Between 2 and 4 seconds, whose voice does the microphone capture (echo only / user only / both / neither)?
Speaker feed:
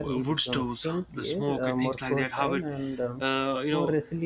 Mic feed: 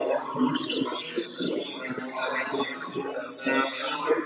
echo only